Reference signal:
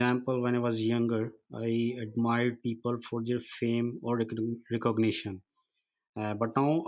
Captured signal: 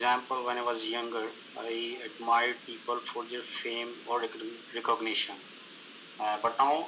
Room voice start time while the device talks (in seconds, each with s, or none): none